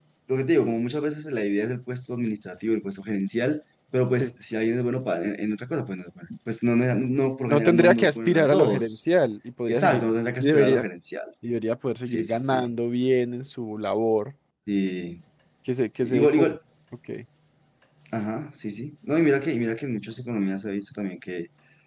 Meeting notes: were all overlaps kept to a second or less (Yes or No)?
No